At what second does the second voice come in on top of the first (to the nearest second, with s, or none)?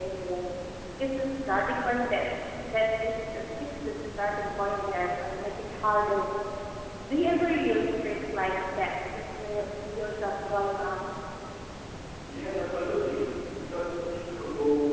none